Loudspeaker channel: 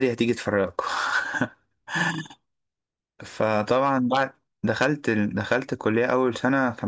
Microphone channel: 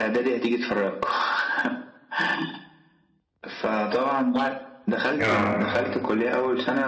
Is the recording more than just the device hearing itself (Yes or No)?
Yes